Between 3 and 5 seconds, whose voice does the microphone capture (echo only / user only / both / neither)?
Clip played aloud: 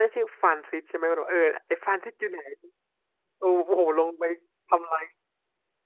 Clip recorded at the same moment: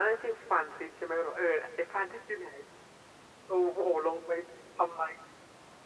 echo only